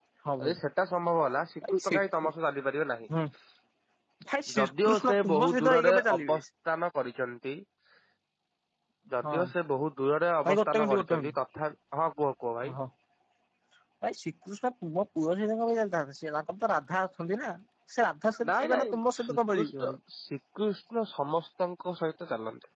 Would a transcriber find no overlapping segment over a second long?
No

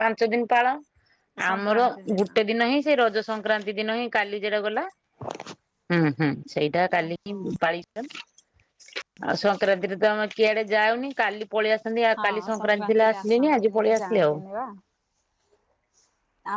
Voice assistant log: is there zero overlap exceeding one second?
No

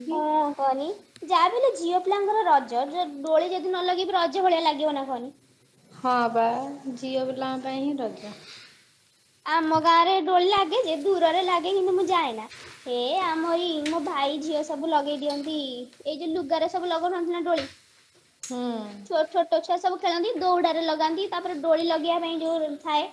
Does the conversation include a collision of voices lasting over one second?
No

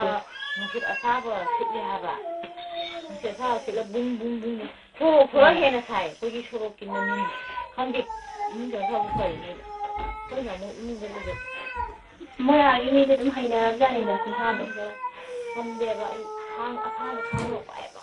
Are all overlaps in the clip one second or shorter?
No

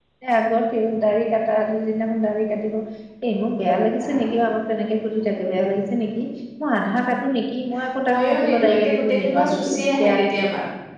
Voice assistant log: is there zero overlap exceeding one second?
No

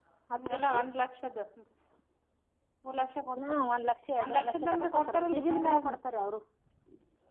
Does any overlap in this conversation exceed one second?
Yes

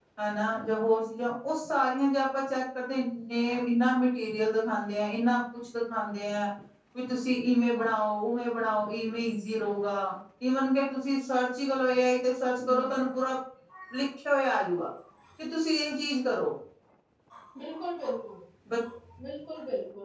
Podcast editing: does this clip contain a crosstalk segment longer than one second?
No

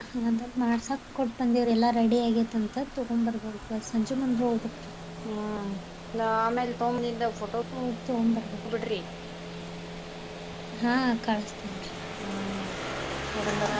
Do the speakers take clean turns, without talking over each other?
Yes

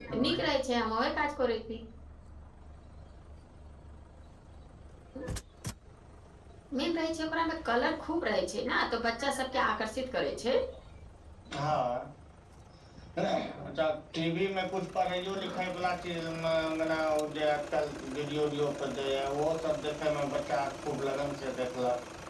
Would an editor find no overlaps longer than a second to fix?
Yes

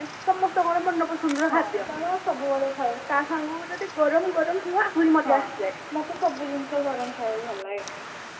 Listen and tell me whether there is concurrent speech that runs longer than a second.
No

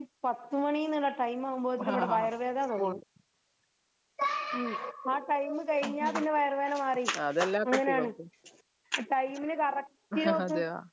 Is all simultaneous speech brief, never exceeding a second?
Yes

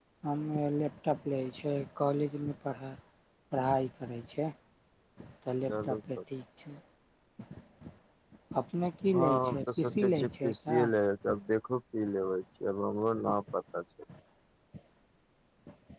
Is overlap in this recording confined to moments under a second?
No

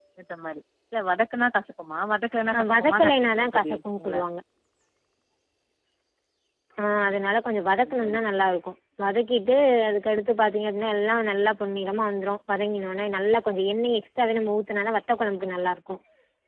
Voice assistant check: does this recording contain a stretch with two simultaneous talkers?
Yes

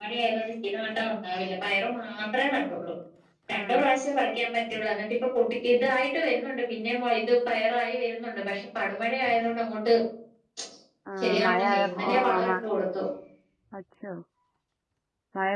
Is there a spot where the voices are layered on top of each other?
Yes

